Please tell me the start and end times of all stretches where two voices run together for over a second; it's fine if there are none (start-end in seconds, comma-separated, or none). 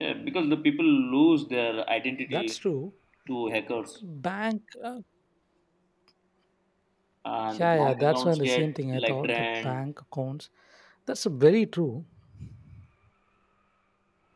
7.6-9.8